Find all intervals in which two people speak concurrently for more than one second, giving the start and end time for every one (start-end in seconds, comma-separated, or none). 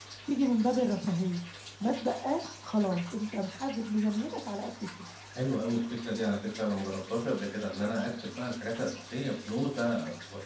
none